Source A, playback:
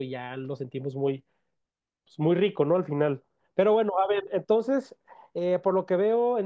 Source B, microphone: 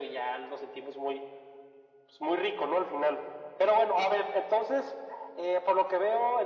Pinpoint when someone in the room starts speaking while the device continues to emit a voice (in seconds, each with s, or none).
none